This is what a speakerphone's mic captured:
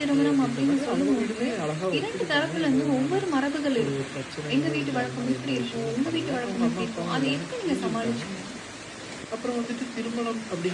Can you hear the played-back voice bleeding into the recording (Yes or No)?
Yes